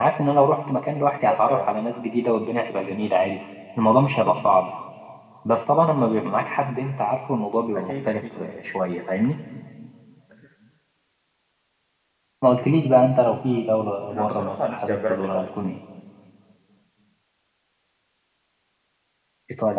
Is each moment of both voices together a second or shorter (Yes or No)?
No